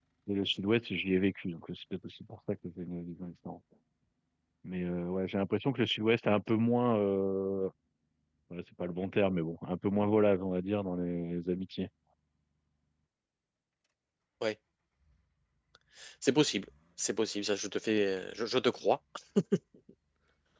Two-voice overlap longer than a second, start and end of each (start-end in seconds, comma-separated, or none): none